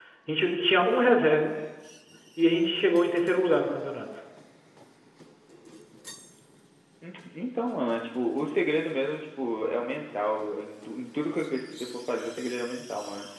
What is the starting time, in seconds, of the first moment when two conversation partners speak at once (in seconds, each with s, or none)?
none